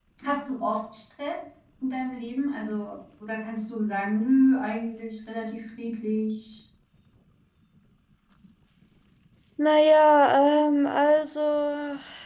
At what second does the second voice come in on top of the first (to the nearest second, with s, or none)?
none